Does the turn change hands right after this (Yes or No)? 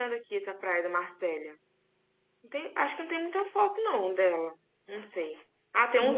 No